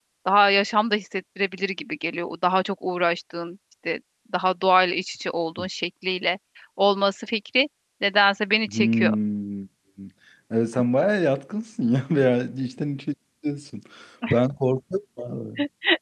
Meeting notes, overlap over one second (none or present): none